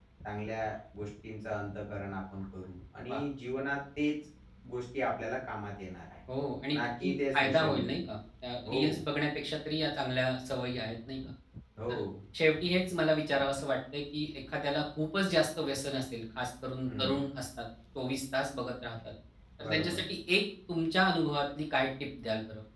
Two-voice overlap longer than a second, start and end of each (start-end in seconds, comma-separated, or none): 6.7-8.0